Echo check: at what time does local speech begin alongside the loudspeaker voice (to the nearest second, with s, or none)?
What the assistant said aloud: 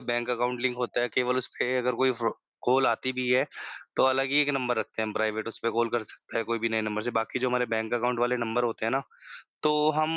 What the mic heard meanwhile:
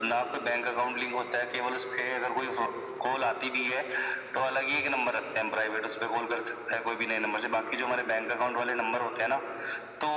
none